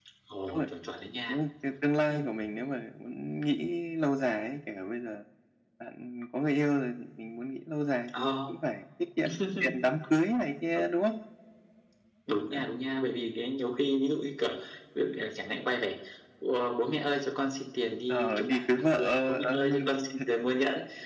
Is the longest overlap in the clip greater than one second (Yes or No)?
Yes